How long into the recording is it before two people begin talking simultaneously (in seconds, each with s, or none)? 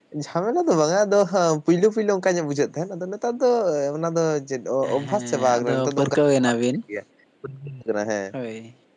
4.8 s